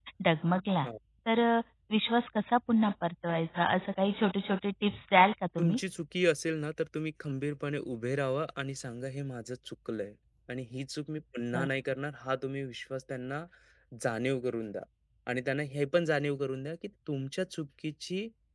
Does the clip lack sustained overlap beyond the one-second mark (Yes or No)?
Yes